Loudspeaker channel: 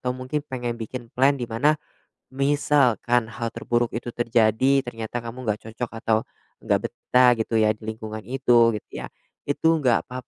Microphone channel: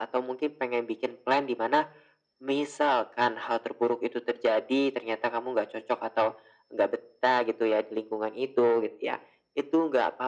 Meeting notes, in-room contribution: none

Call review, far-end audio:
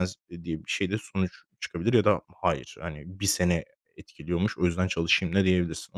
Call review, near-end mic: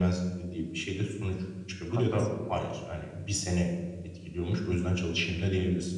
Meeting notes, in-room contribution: present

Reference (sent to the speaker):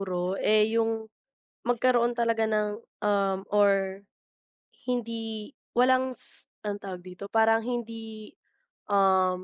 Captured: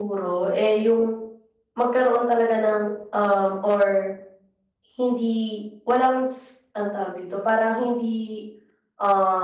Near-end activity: none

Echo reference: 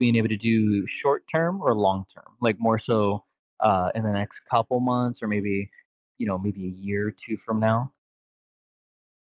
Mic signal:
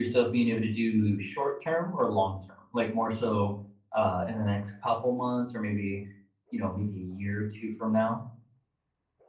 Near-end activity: none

